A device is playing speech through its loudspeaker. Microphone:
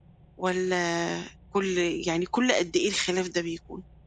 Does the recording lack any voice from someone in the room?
No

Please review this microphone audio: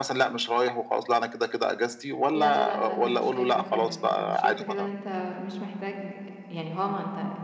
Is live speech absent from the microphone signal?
No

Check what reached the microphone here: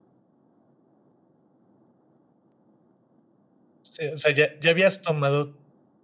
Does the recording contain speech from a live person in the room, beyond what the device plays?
Yes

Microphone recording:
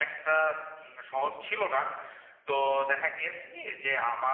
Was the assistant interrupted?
No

